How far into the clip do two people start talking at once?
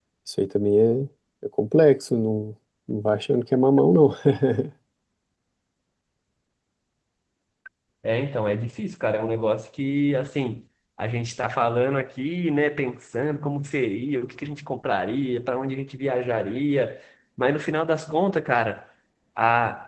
none

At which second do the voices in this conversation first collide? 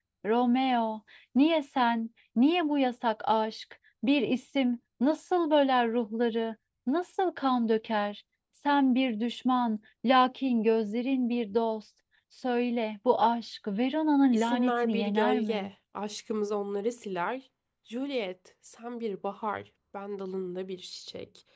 14.3 s

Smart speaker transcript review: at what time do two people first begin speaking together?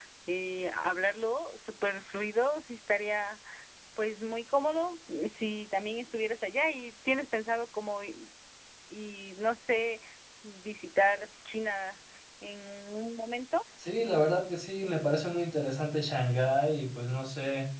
none

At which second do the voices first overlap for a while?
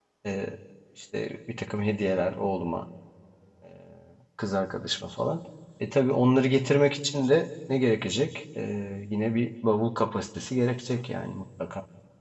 none

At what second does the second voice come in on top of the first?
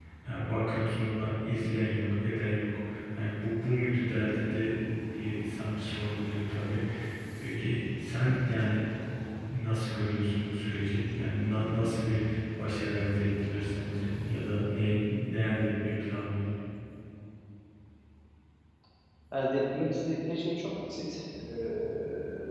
none

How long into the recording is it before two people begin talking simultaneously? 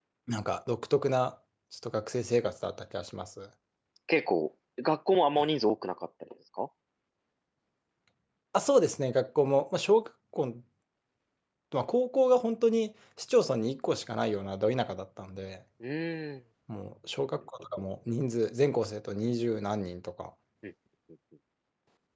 none

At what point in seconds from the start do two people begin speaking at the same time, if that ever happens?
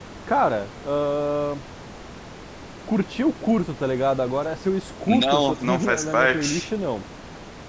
5.1 s

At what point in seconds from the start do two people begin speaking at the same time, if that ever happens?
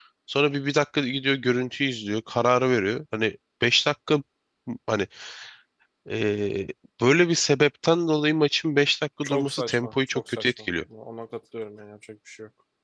9.2 s

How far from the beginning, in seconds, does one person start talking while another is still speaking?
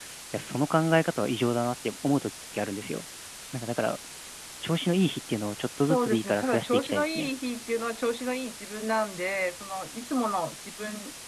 5.8 s

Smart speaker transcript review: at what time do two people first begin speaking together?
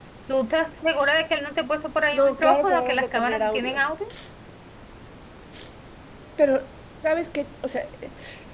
2.1 s

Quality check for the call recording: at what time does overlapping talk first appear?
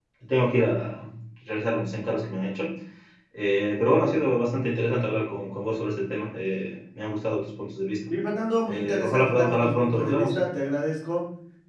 8.7 s

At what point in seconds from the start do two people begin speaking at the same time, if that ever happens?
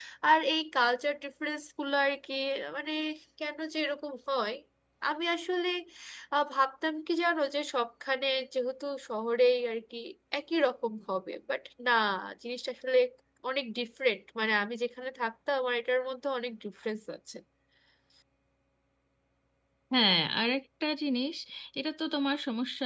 none

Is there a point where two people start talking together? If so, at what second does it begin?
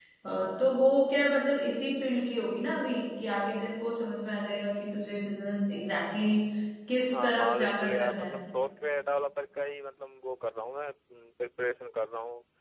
7.1 s

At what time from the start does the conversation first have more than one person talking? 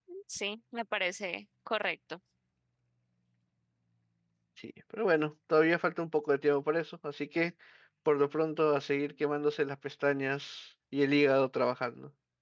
none

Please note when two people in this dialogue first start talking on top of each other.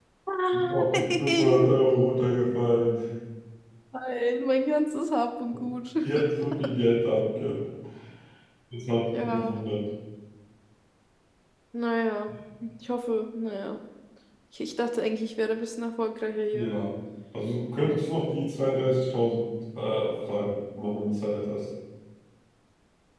0.5 s

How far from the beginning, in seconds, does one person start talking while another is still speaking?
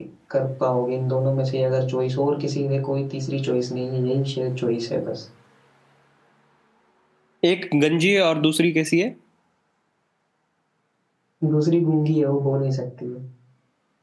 none

